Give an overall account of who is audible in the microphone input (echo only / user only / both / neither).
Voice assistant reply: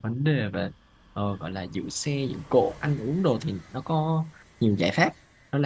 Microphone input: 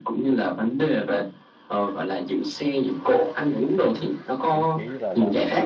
both